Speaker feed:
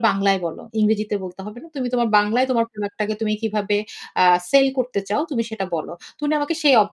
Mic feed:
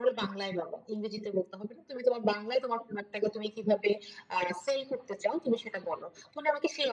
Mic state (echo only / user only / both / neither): echo only